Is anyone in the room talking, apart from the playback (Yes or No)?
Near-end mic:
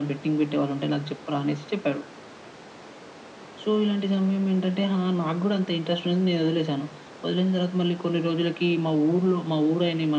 No